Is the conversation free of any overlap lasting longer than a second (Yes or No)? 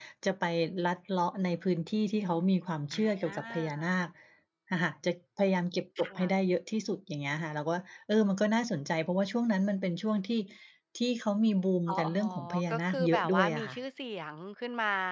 No